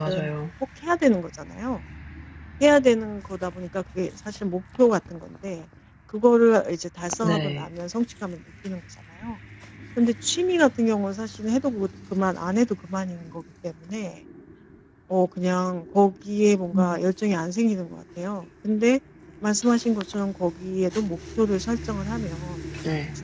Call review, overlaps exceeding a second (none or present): none